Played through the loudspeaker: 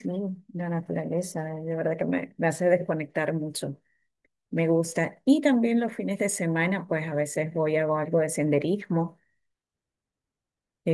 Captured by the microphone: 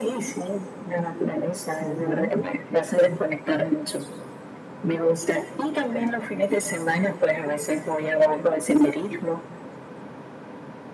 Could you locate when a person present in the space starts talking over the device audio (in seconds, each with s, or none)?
1.8 s